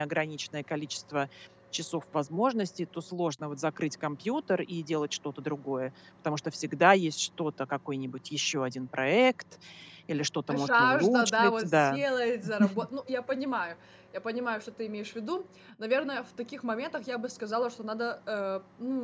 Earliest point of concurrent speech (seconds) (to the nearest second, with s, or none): 11 s